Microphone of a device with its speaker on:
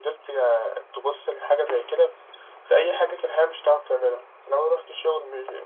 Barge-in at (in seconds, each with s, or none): none